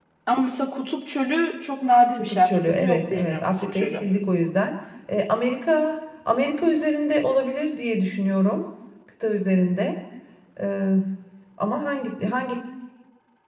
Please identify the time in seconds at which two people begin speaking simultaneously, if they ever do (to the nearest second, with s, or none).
2 s